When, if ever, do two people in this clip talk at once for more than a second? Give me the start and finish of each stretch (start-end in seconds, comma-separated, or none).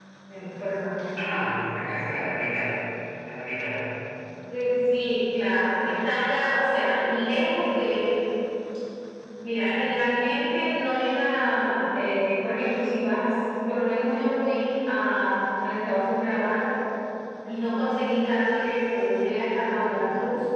none